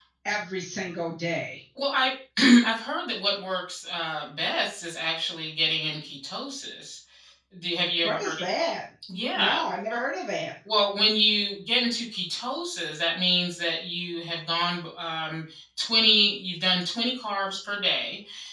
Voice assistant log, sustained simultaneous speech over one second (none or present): none